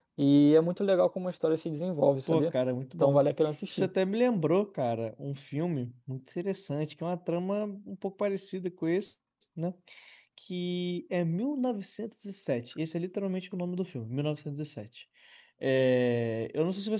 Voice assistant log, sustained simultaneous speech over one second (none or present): none